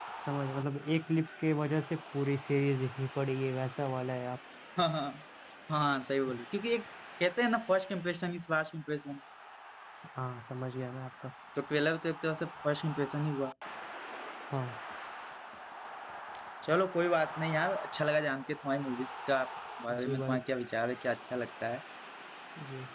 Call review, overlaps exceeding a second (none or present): none